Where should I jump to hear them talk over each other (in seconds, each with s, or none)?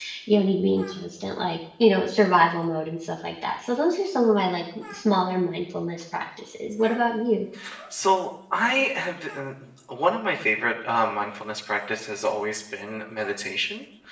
none